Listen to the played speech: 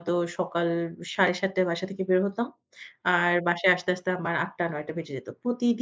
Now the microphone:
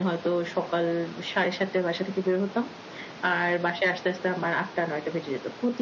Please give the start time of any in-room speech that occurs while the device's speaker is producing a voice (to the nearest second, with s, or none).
none